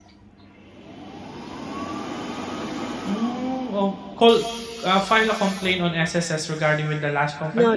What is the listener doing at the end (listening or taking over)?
taking over